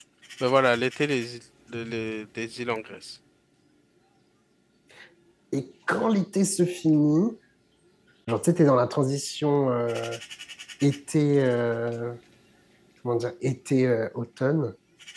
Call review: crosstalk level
none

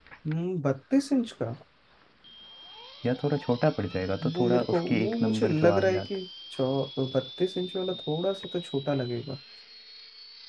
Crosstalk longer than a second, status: present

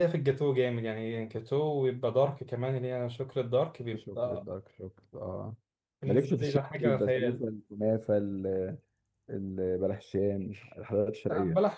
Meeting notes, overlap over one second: present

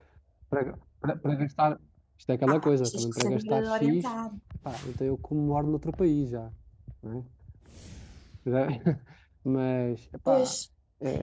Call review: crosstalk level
present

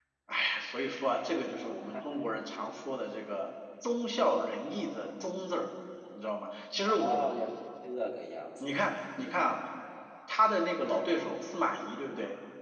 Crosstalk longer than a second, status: none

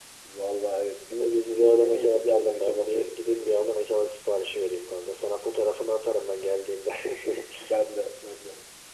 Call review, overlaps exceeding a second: present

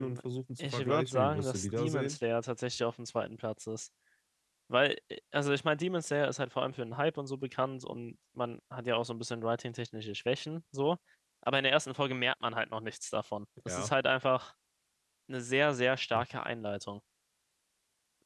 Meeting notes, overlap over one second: present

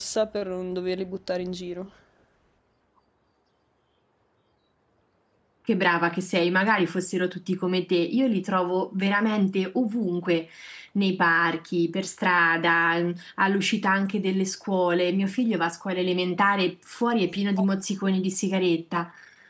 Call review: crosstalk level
none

